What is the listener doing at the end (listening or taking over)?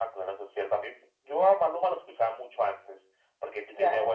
listening